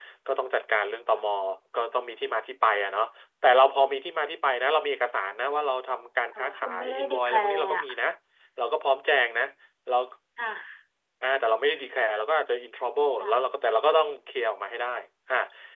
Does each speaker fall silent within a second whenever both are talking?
No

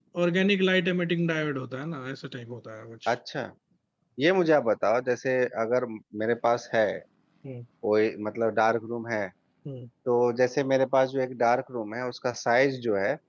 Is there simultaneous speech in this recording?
No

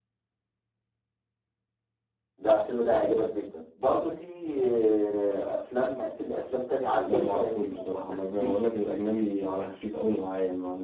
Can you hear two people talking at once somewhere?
Yes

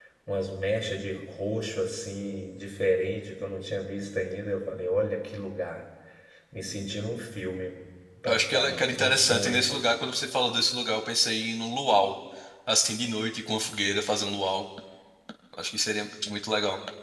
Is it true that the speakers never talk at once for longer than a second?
No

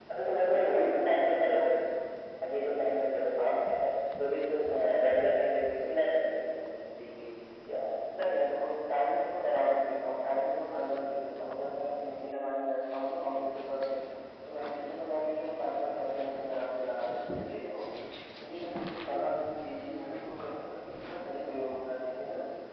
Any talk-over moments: Yes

